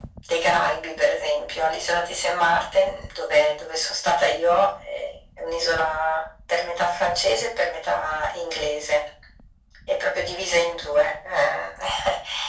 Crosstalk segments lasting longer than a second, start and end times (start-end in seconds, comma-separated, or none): none